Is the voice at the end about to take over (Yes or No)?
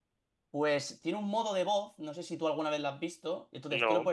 No